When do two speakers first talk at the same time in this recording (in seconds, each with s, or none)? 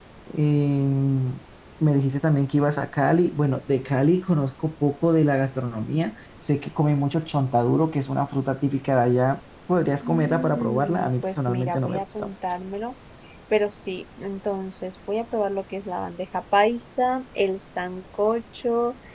10.0 s